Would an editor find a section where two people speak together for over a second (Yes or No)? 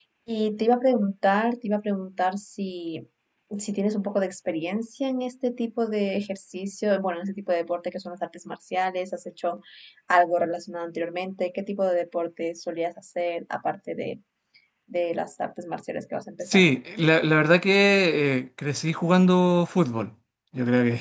No